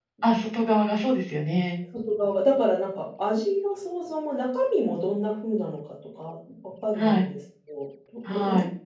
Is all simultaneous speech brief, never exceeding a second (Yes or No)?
Yes